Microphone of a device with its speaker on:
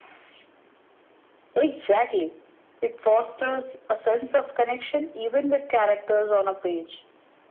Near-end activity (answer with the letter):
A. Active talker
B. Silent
B